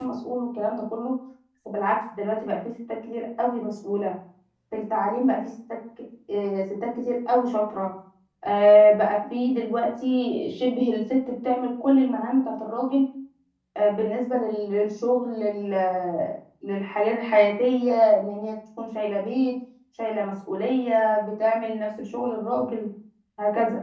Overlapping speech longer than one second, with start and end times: none

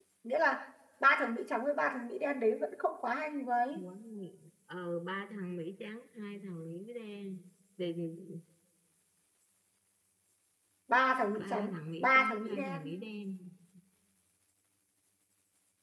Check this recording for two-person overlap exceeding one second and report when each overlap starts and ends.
11.4-12.8

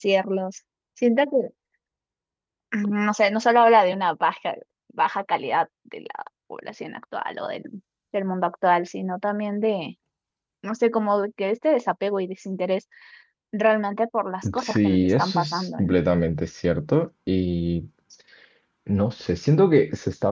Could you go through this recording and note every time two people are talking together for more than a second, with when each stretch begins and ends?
14.6-15.9

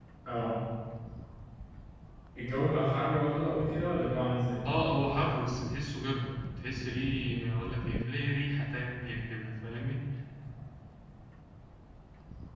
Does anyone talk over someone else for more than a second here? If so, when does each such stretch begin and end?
none

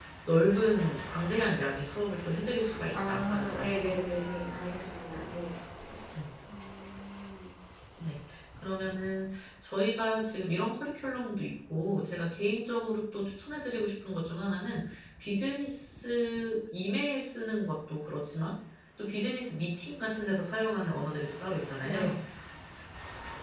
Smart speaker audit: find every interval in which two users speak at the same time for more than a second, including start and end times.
2.9-4.2

